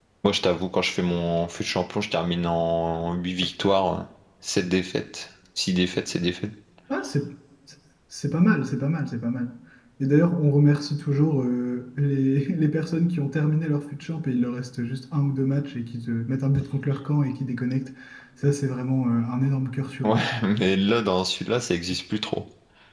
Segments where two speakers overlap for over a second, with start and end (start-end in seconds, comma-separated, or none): none